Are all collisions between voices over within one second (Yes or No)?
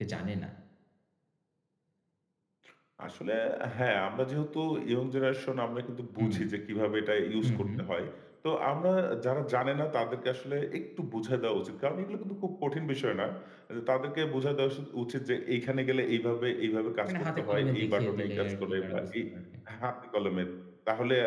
No